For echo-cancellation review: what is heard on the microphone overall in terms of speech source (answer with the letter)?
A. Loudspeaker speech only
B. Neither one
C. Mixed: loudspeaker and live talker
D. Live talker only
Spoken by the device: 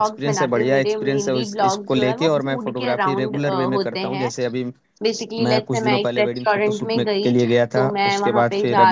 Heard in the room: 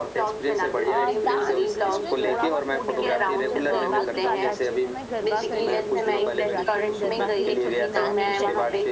C